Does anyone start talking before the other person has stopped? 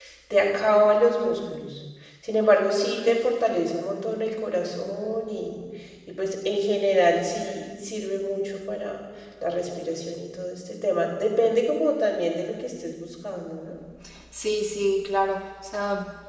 No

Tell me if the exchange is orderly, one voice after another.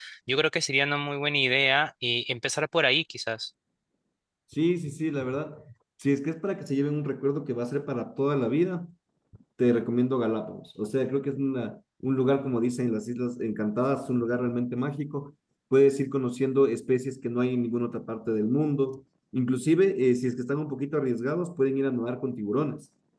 Yes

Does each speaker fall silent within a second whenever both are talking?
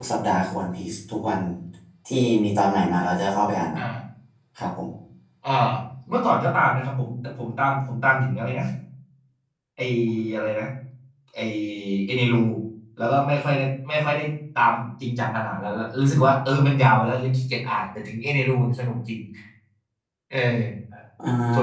Yes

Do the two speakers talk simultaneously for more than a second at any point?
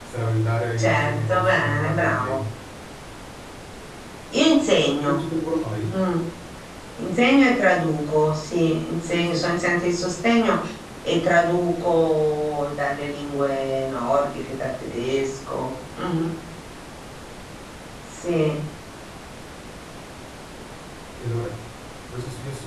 Yes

